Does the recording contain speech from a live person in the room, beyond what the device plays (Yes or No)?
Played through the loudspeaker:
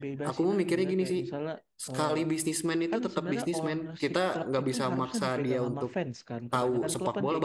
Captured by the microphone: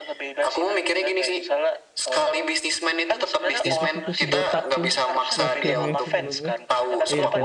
Yes